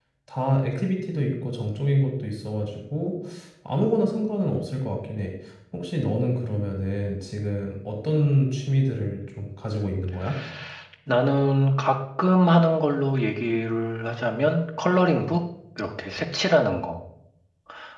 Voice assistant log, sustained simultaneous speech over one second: none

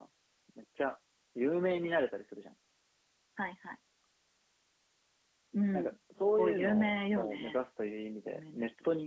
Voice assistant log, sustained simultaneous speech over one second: present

